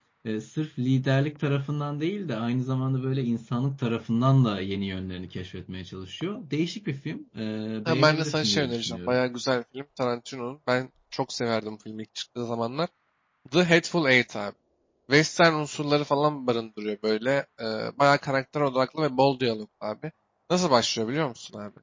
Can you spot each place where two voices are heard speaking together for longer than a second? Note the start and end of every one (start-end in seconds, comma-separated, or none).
7.8-9.2